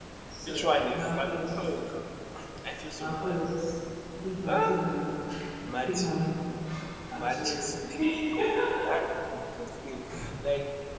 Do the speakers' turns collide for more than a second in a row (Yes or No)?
Yes